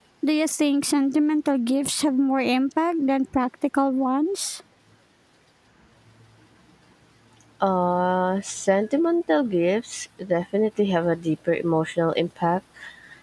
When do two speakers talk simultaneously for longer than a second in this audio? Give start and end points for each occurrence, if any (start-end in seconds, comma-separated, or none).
none